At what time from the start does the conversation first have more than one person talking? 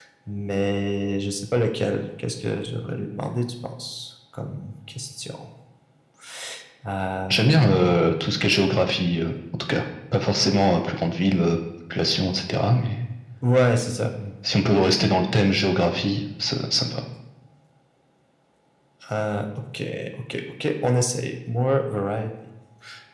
none

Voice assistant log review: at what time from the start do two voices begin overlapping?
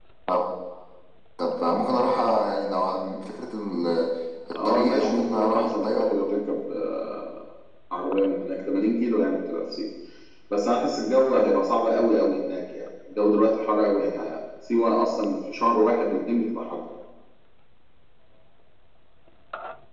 5 s

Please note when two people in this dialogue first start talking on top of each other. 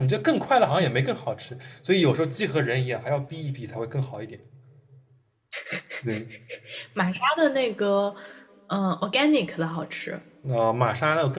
none

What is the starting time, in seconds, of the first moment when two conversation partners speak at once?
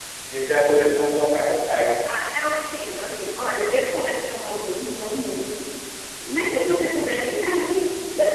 none

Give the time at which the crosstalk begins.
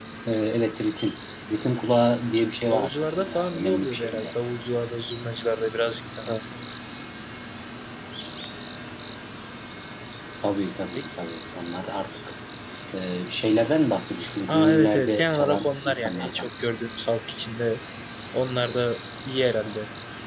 3 s

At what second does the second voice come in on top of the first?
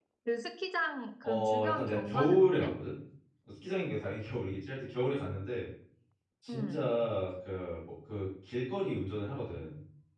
1 s

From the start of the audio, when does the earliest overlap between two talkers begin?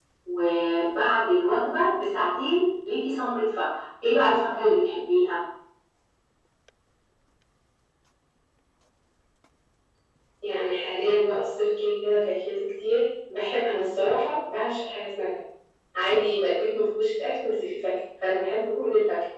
none

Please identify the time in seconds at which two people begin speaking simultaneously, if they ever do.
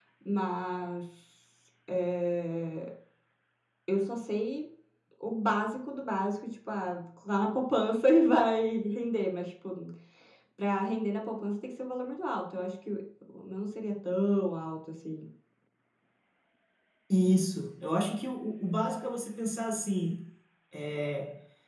none

